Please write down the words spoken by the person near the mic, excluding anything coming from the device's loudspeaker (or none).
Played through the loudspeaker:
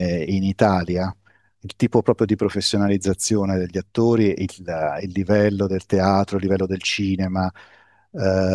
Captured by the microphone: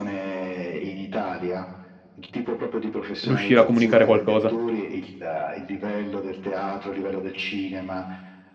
riuscire a comunicare qualcosa.